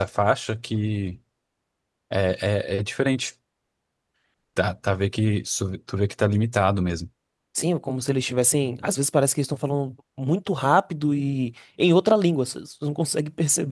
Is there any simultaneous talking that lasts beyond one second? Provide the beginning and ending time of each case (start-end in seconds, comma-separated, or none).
none